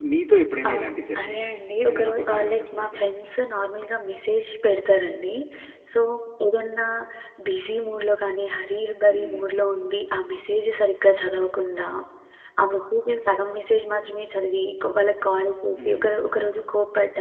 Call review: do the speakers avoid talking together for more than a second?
No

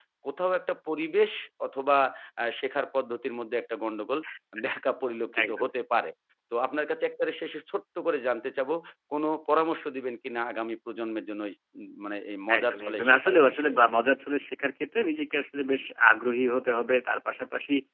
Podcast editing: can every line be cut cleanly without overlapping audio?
No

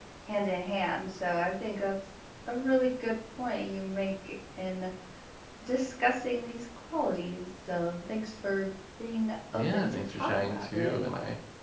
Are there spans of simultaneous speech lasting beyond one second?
Yes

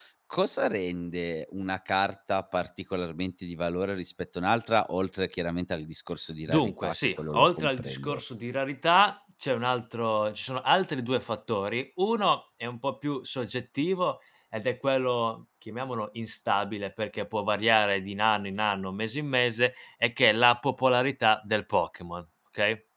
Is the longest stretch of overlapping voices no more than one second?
No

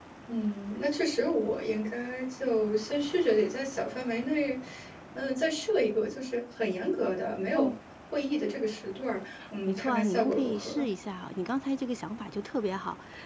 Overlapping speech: Yes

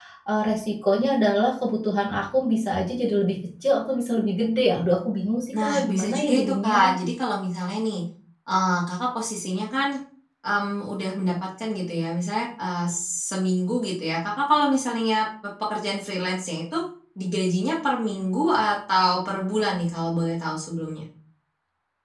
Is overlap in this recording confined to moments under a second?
No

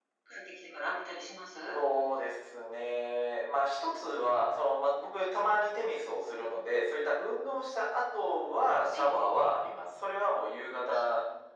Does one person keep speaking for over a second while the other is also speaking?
No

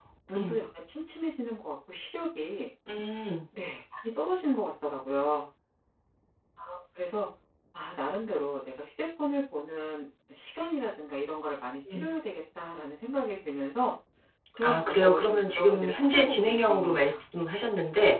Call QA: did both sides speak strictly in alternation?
No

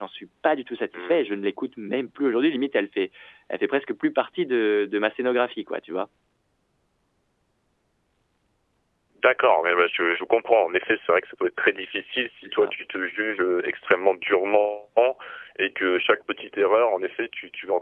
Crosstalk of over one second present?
No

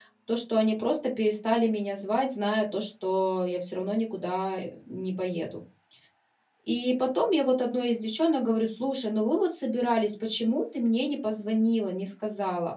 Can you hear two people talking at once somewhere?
No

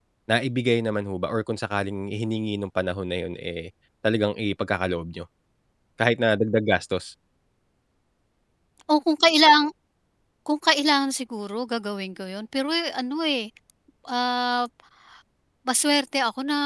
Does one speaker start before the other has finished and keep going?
No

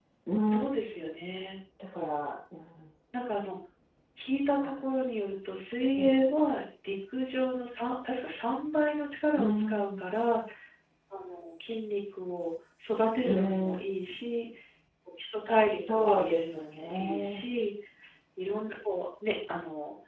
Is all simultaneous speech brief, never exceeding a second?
No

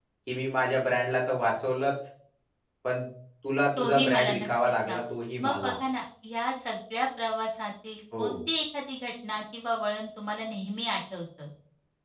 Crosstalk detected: Yes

